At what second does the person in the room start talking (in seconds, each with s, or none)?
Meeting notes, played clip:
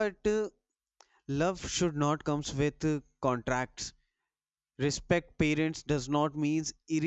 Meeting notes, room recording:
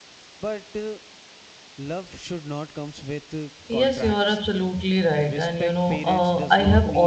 3.7 s